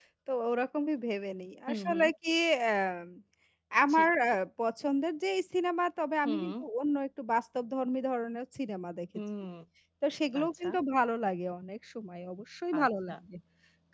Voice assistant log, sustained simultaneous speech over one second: none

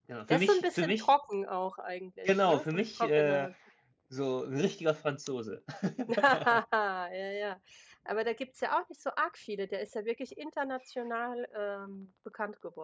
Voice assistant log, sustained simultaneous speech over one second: present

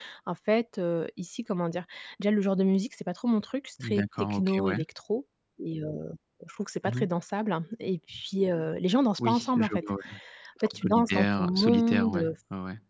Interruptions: present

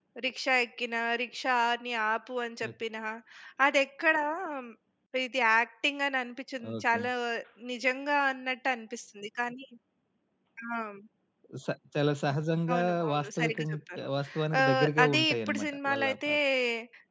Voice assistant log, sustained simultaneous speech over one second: present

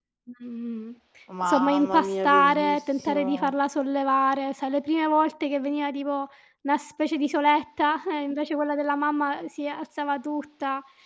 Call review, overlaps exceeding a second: present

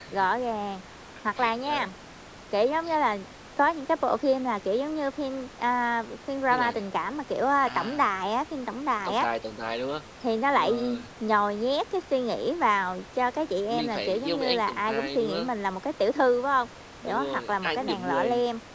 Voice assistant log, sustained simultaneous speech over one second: present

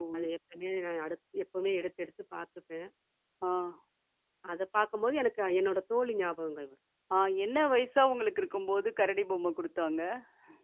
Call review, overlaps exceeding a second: none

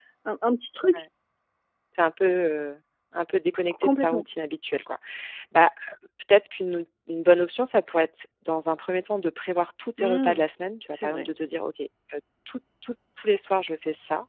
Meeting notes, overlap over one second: none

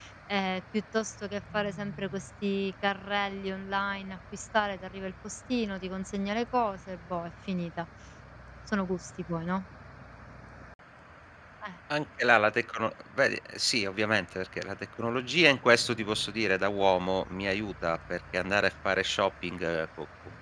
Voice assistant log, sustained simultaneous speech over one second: none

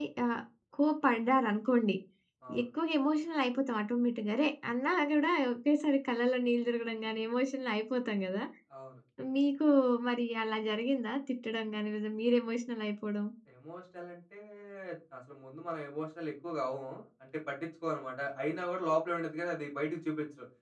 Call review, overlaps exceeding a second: none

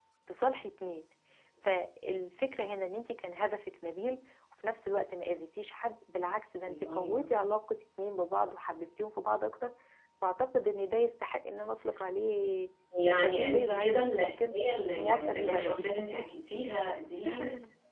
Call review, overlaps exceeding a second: present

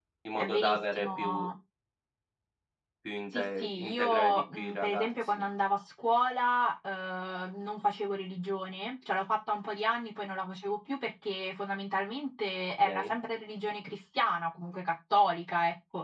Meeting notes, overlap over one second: present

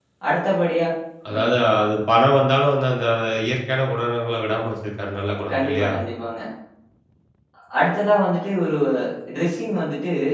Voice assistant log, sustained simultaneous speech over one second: none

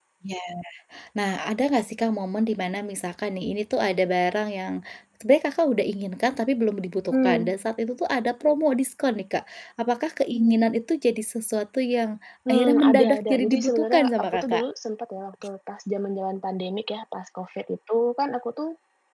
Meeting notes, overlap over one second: present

